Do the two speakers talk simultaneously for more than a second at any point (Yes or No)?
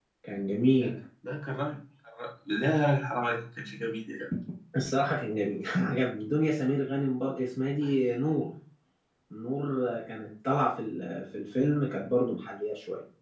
No